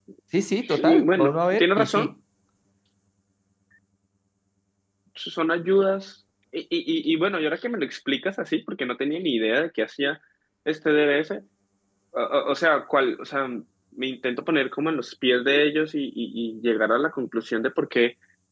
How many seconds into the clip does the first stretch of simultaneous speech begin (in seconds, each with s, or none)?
0.8 s